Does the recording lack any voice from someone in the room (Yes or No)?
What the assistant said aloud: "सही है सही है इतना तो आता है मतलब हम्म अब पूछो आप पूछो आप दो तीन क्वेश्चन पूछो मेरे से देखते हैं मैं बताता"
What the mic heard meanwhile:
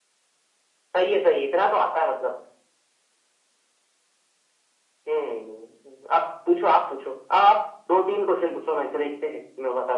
Yes